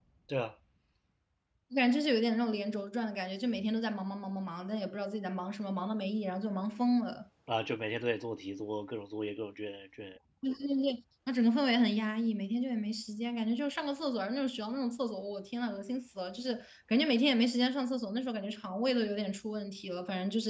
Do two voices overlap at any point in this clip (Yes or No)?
No